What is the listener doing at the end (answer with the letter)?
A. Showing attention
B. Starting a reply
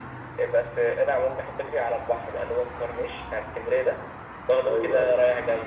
A